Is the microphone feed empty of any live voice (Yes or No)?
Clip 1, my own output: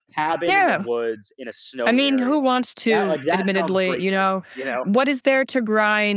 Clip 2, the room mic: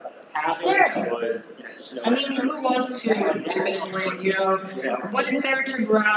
Yes